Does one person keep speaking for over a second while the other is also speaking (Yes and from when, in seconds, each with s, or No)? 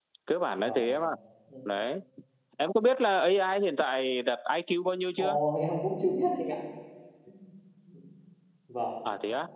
No